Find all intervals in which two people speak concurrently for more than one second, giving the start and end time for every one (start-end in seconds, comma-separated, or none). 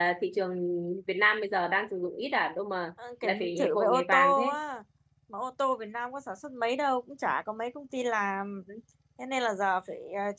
3.2-4.6